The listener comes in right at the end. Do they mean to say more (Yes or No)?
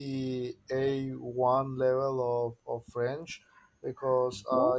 No